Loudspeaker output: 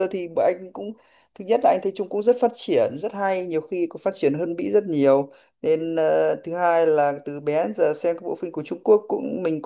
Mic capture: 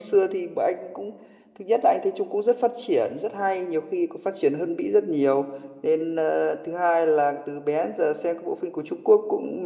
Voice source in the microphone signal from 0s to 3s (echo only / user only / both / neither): echo only